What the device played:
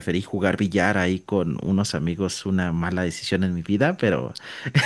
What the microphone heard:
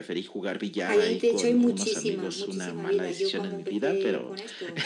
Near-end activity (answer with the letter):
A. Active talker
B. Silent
A